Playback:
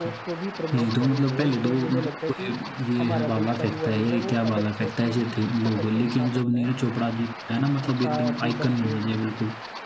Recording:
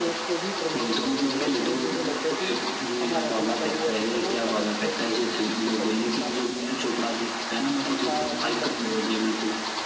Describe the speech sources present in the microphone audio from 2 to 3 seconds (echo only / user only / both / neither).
echo only